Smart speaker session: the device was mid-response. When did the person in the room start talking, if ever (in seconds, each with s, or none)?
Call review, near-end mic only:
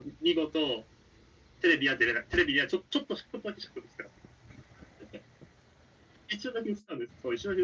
none